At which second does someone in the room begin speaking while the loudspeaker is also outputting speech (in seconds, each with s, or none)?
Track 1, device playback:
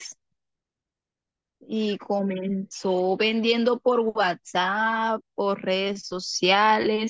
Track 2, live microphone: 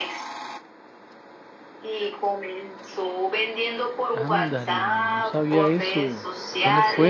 4.1 s